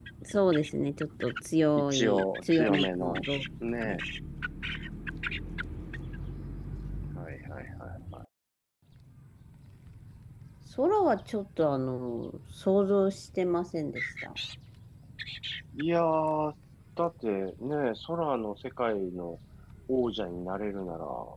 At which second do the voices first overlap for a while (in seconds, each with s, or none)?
1.8 s